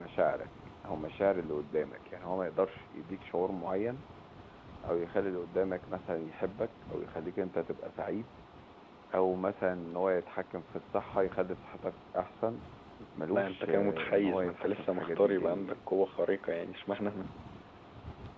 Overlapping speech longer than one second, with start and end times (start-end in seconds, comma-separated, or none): 13.3-15.8